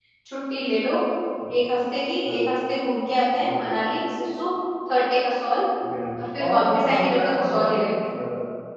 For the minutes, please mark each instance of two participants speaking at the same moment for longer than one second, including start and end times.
6.2-8.0

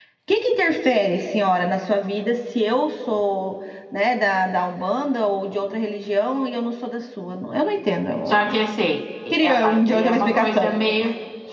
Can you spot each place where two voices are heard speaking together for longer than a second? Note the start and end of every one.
9.3-10.7

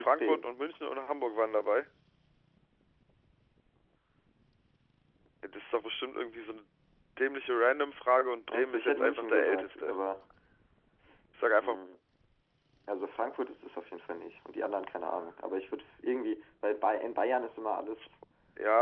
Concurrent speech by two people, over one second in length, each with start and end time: 8.5-9.9

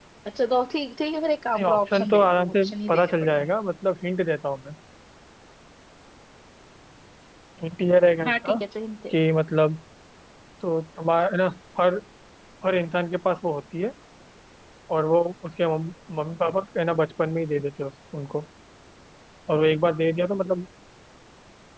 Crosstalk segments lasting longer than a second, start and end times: 1.6-3.5

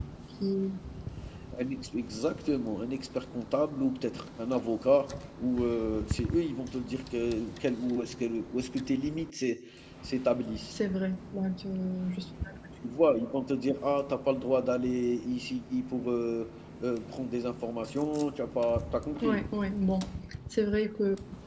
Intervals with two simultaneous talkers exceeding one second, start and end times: none

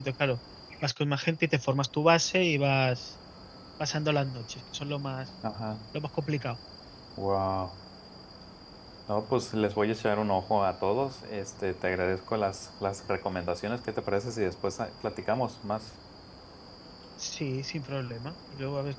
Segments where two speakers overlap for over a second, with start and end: none

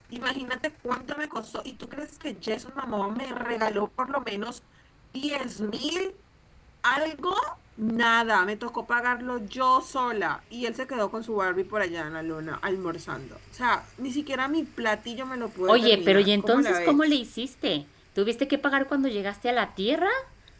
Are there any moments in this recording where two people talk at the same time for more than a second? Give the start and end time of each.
15.7-17.2

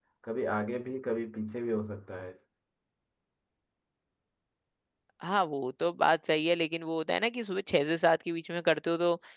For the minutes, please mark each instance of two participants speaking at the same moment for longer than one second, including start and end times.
none

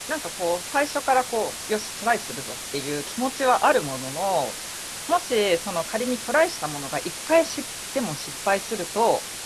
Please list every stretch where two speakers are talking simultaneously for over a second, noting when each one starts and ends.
none

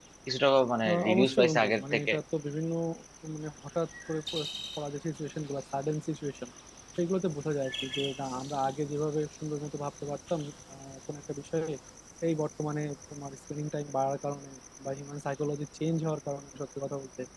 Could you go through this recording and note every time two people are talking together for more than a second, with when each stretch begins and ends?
0.9-2.1

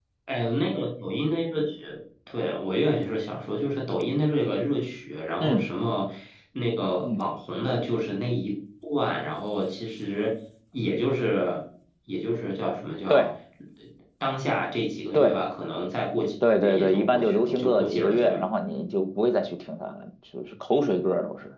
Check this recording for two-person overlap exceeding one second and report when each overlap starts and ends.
16.5-18.3

